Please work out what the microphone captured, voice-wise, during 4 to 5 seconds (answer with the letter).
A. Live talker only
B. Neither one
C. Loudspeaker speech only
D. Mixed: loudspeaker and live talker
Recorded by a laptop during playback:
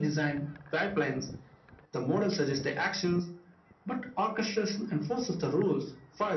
C